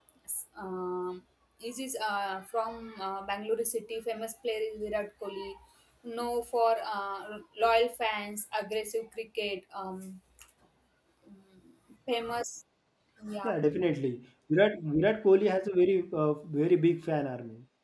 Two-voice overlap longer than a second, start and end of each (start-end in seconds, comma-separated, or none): none